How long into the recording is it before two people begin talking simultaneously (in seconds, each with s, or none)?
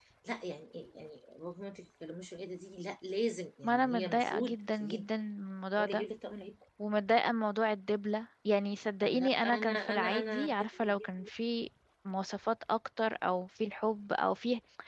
3.6 s